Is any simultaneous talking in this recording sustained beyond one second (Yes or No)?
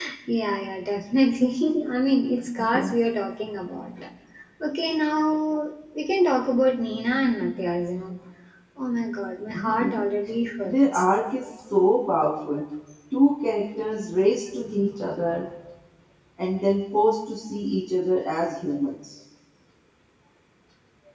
No